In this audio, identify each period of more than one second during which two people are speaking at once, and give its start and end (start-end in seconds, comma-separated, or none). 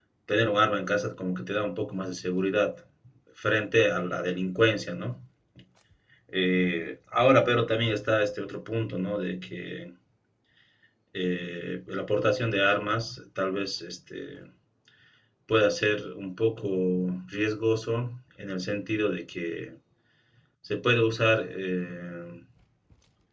none